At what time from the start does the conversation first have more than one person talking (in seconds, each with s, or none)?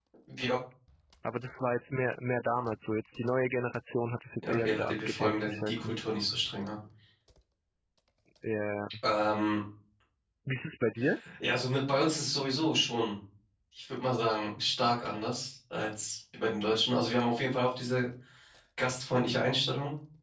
4.4 s